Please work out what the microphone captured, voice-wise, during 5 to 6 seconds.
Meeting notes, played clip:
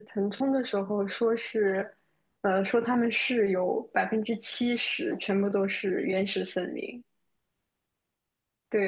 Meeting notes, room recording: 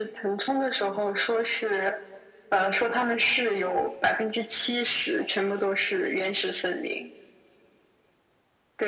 echo only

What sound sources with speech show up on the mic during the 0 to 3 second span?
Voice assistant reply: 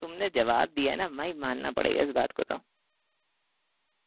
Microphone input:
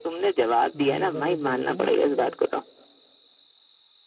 both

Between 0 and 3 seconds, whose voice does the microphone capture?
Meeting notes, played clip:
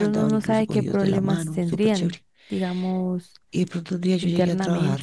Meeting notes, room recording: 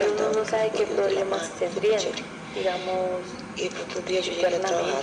echo only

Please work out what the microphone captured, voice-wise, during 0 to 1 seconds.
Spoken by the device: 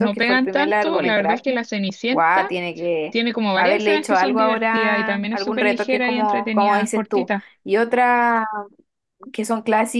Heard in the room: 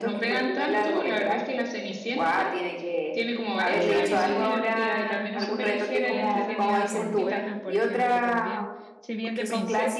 echo only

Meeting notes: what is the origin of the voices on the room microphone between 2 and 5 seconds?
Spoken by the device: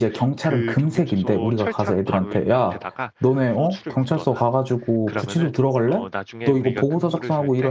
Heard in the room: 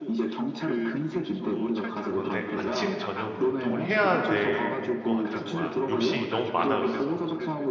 both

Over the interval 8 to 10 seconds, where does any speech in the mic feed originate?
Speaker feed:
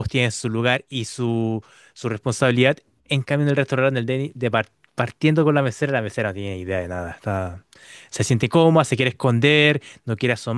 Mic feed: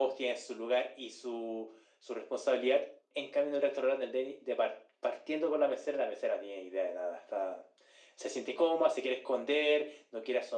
echo only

